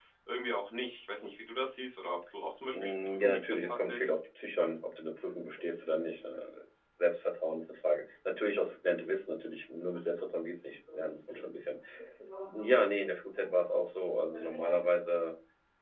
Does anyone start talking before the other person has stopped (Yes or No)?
Yes